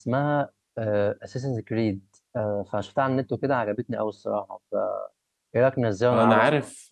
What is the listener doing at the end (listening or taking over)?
taking over